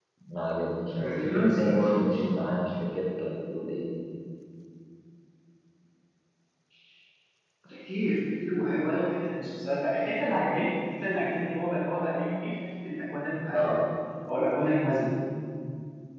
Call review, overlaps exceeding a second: present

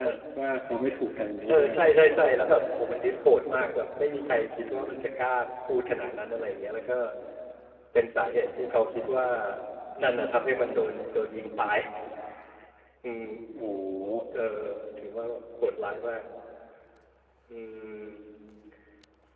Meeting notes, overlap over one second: none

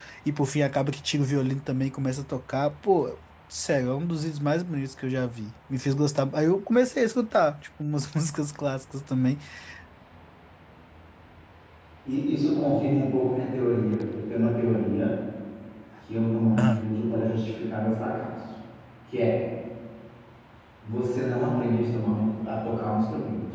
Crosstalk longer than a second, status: none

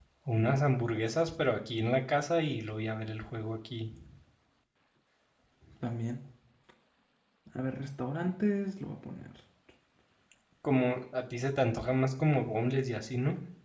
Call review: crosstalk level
none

